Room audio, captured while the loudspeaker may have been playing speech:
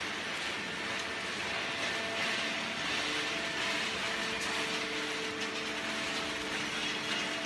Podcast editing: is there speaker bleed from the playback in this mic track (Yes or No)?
No